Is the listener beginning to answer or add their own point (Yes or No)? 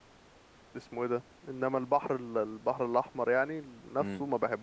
No